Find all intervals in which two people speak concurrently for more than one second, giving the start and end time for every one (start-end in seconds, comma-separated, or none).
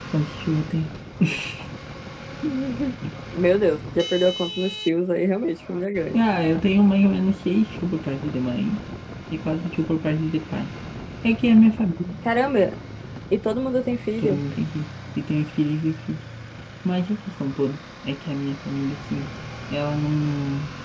none